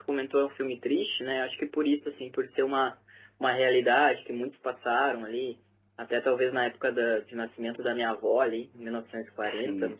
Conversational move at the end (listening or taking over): listening